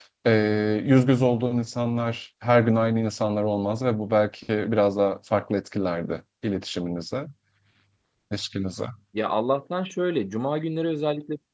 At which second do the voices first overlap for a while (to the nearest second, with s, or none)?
none